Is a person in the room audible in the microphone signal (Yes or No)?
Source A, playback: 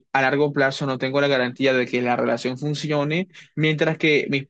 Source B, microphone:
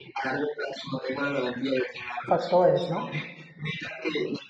Yes